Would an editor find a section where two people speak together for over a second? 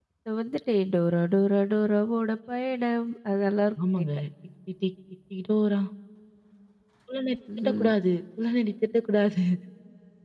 No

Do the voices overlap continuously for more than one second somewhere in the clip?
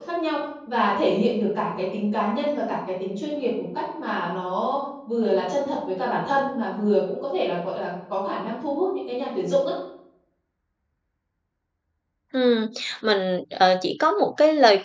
No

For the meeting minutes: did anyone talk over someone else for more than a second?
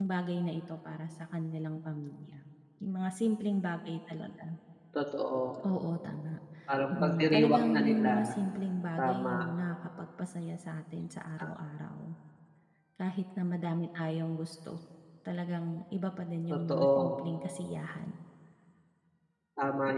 Yes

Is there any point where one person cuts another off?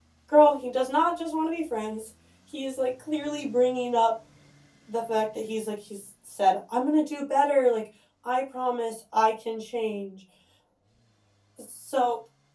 No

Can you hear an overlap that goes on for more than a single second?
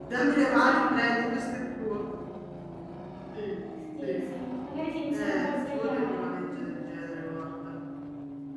Yes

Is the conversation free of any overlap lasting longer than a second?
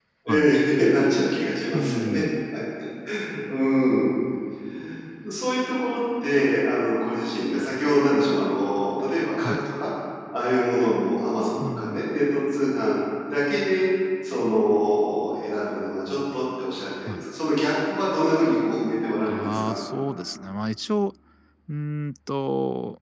Yes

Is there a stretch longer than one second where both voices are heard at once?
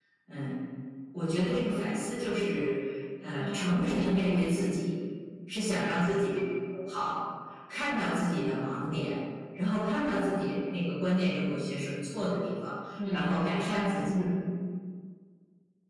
Yes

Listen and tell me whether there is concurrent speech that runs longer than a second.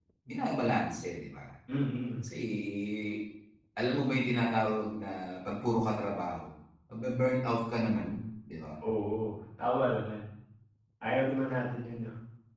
No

